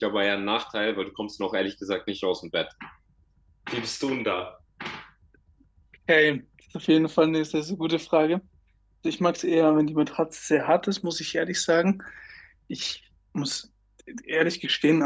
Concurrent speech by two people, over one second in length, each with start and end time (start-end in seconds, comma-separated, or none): none